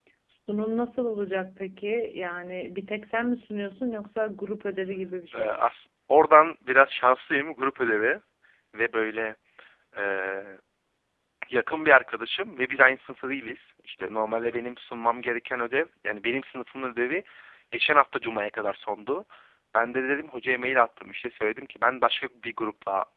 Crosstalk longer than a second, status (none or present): none